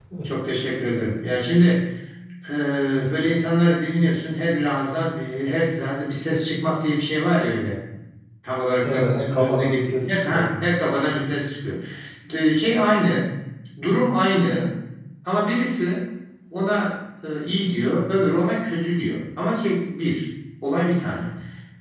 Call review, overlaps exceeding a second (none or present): present